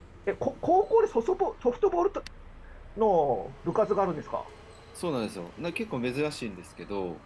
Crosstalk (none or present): none